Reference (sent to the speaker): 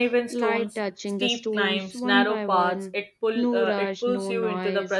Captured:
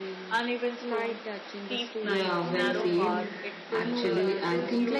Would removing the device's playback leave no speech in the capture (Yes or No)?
No